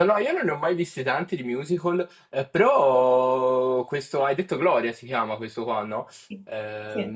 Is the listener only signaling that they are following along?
Yes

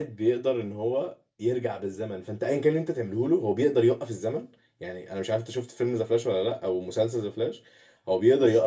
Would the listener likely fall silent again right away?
Yes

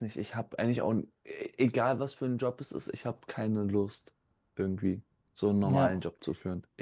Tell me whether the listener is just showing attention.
Yes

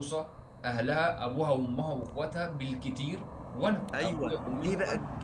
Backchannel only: No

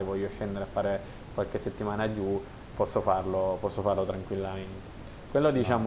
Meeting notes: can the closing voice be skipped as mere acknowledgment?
Yes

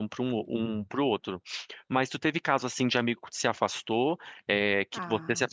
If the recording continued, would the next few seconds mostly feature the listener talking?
No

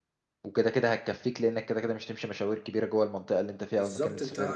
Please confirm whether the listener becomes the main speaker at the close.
Yes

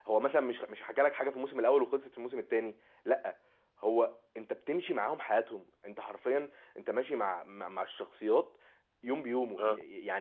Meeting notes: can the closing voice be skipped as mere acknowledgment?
Yes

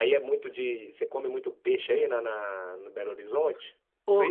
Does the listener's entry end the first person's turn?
Yes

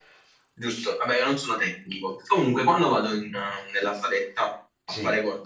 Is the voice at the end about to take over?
No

